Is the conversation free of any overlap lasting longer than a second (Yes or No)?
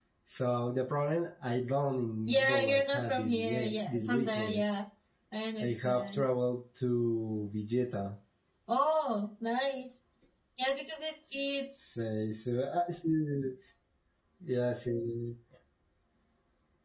No